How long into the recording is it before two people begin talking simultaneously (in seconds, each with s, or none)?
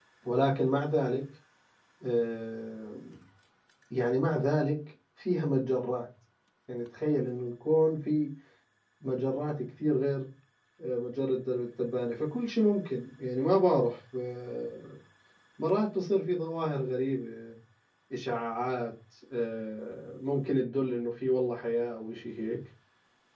none